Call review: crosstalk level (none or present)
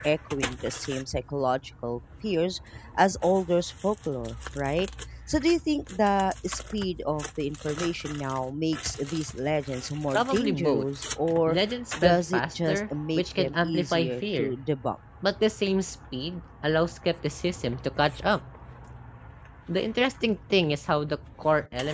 present